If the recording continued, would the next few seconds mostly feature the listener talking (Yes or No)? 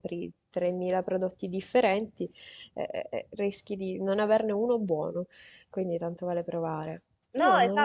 Yes